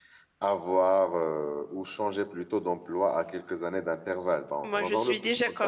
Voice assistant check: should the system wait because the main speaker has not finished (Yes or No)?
No